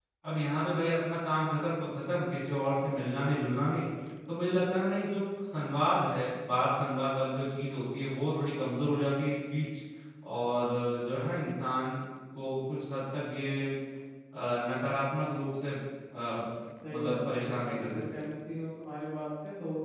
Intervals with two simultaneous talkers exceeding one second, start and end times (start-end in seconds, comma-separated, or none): 16.9-18.2